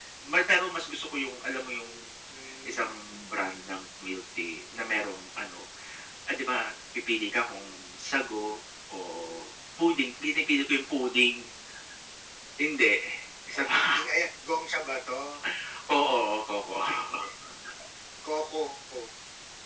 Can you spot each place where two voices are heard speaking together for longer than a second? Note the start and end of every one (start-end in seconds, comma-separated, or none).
none